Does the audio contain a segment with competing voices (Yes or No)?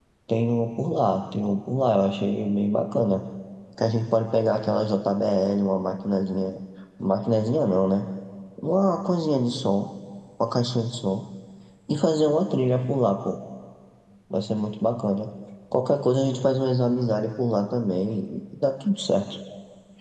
No